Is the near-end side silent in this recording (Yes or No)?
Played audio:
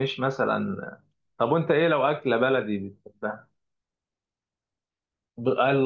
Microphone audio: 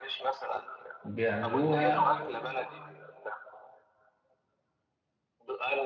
No